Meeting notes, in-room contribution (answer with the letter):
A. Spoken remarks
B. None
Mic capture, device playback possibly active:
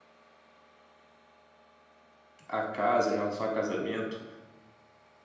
A